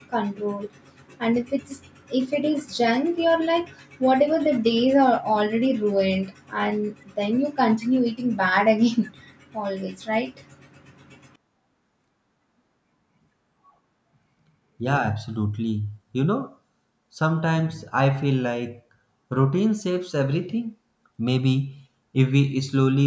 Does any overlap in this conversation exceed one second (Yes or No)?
No